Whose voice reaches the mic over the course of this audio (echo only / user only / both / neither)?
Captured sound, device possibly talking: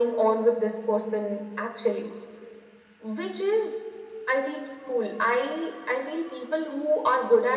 echo only